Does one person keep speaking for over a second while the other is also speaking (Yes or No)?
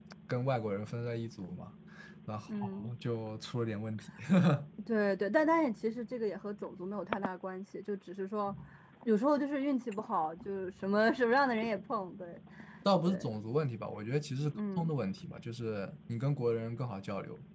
No